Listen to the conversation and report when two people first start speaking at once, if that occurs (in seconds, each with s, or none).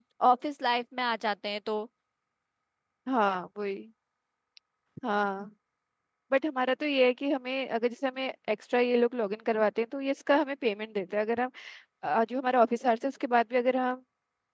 none